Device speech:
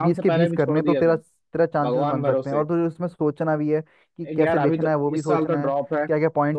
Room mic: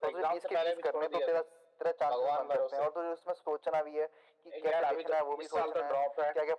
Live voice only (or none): none